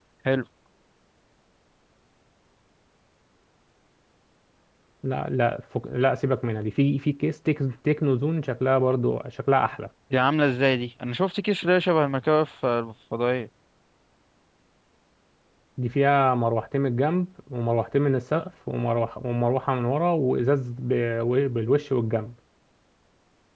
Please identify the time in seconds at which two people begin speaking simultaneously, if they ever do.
none

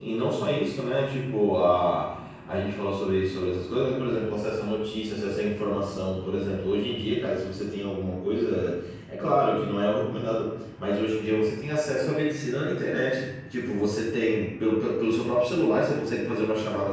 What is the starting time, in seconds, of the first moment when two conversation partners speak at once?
none

